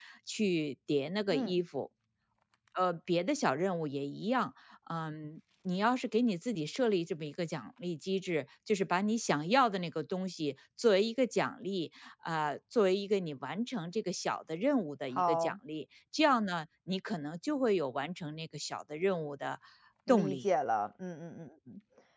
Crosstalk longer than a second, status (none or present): none